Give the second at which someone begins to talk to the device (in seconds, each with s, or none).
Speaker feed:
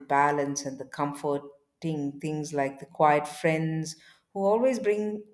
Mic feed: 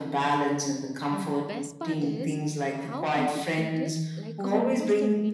1.1 s